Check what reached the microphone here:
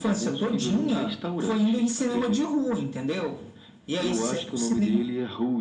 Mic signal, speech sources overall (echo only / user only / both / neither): echo only